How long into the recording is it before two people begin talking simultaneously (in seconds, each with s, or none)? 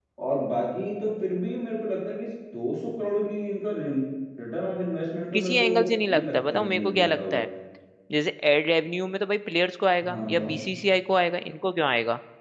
5.3 s